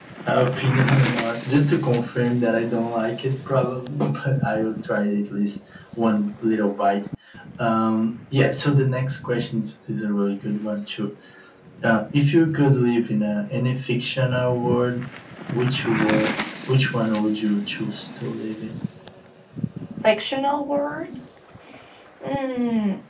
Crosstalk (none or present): none